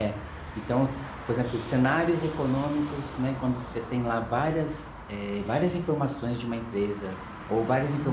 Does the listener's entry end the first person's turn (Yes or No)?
No